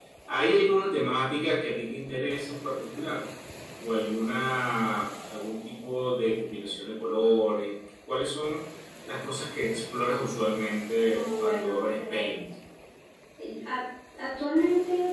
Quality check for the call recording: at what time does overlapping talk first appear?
11.1 s

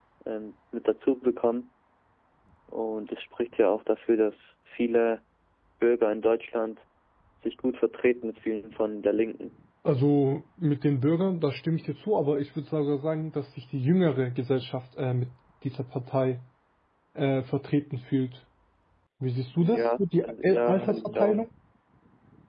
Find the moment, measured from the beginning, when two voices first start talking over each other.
19.6 s

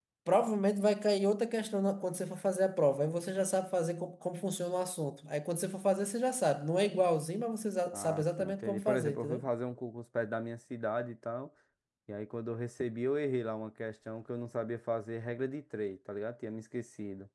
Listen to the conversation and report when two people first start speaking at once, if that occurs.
7.8 s

